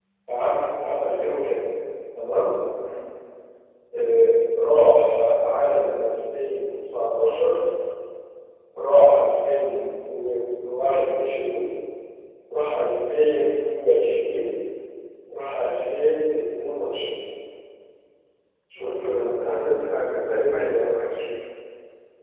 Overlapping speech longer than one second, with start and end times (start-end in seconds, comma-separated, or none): 18.8-21.0